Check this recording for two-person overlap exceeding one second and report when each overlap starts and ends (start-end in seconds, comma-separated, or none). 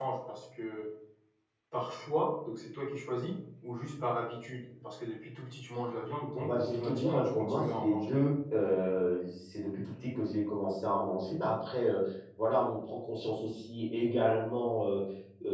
6.4-8.1